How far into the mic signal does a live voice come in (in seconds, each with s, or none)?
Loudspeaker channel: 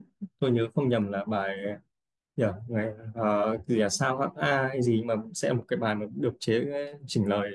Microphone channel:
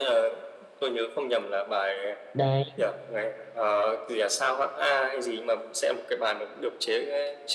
2.3 s